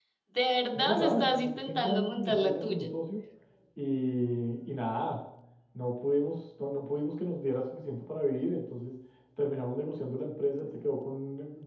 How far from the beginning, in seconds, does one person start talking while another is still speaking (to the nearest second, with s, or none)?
1 s